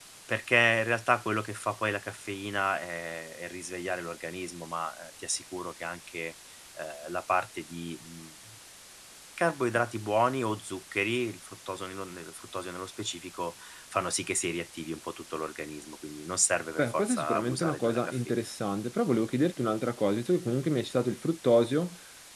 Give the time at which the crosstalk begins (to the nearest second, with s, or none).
17 s